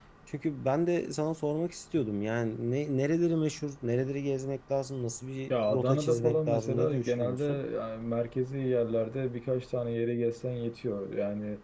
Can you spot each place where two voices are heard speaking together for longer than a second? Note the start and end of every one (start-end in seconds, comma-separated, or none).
5.5-7.6